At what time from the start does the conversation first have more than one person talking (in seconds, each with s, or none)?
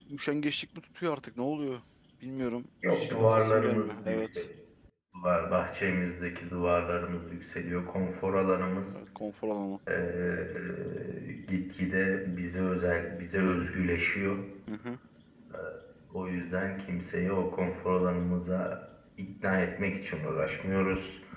2.9 s